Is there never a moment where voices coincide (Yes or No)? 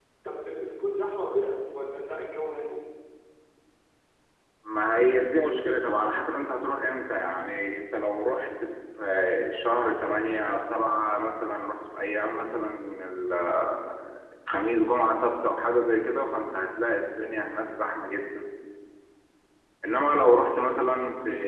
Yes